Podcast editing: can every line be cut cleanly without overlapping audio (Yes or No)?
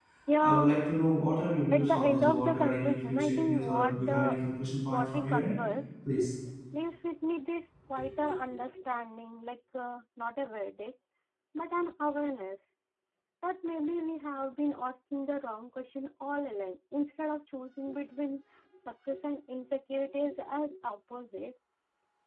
No